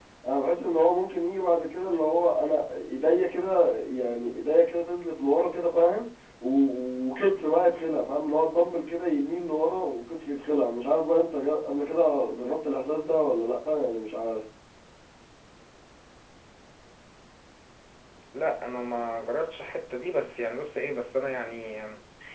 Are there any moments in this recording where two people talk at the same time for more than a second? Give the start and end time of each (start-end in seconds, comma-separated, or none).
none